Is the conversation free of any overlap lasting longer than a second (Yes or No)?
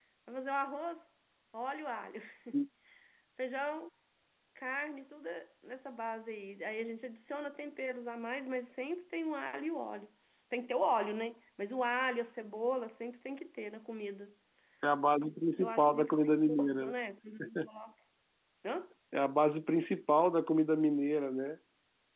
No